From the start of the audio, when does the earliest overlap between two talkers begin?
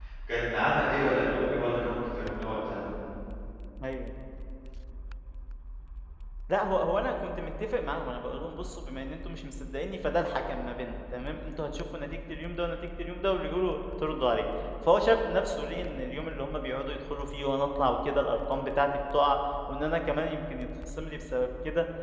none

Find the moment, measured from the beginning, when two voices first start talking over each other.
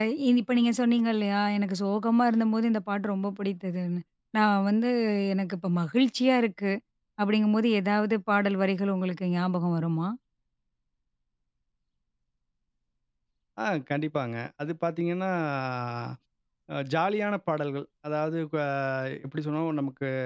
none

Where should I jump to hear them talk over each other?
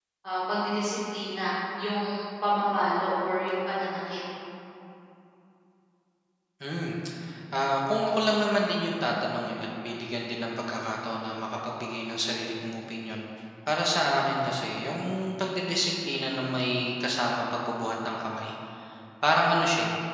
none

